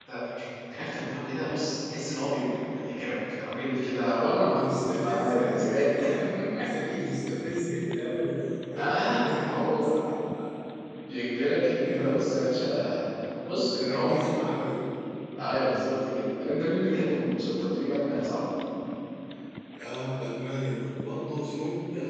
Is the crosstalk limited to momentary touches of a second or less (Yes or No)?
No